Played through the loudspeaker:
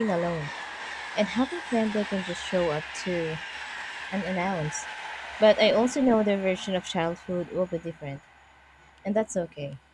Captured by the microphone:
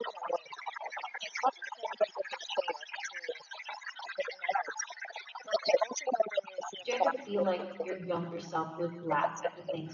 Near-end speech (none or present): present